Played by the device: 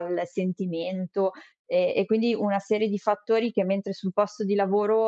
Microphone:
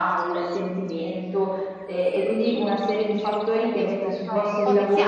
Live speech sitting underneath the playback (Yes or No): Yes